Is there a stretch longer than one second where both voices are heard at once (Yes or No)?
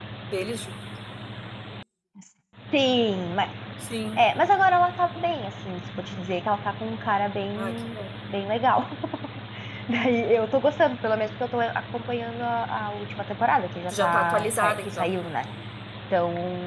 Yes